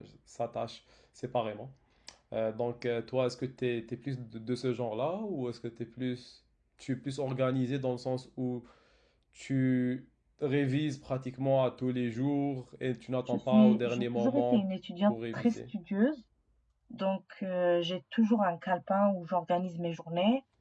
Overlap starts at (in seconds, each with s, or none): 13.3 s